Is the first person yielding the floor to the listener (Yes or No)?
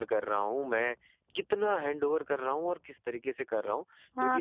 Yes